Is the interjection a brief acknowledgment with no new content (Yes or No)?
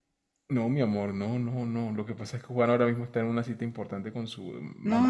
No